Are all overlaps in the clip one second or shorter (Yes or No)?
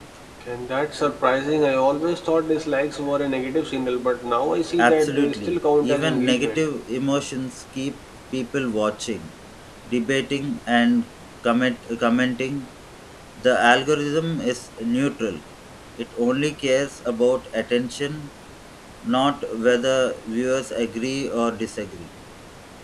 No